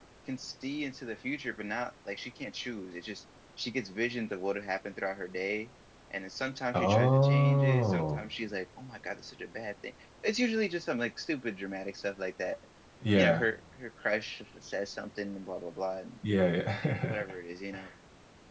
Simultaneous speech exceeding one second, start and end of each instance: 6.8-8.2

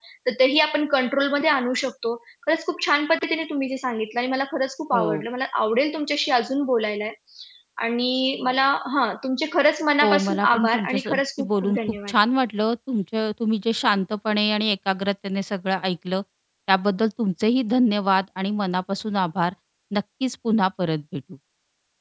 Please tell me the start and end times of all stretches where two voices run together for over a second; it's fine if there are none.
10.0-12.1

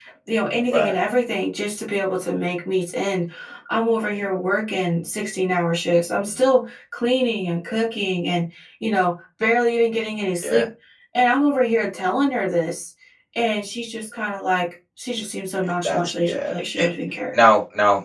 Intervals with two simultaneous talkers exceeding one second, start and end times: 15.6-16.9

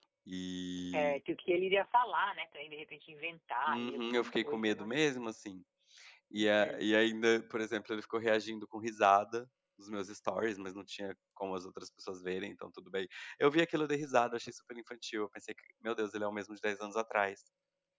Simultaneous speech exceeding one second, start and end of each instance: 3.7-4.9

